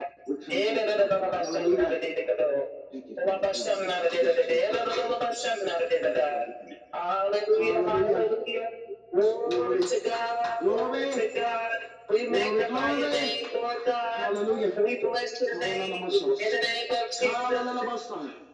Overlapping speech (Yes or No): Yes